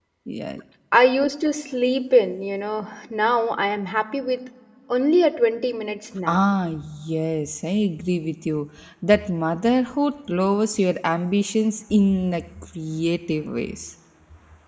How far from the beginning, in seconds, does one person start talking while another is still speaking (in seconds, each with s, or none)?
none